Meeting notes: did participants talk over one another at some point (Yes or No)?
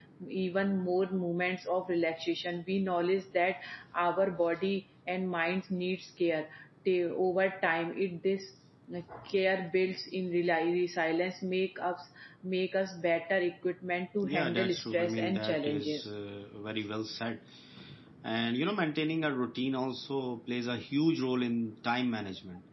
Yes